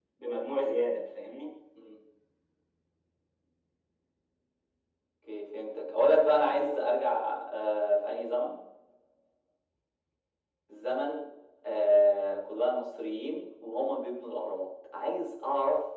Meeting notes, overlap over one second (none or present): none